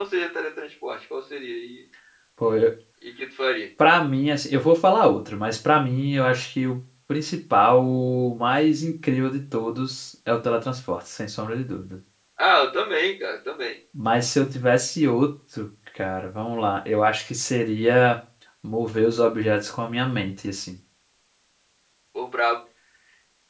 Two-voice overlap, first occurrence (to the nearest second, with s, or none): none